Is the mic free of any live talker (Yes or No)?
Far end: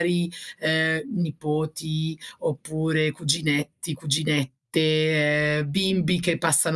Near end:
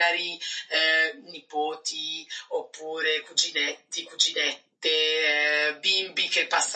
Yes